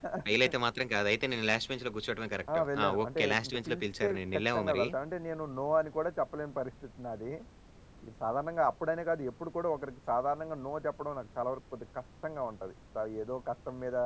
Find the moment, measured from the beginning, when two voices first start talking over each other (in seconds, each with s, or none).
2.5 s